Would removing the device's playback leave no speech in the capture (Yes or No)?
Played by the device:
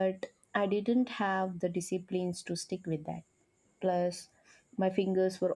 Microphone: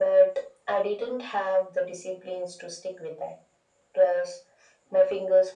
Yes